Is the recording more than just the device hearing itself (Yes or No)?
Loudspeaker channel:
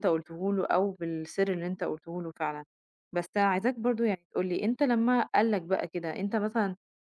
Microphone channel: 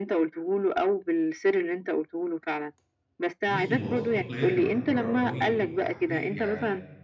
Yes